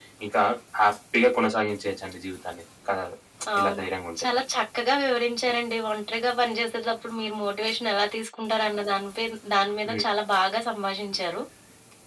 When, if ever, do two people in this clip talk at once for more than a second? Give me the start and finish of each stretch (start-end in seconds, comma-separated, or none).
none